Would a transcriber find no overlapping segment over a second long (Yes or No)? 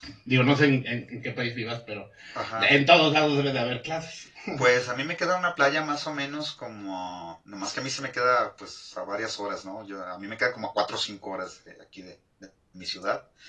Yes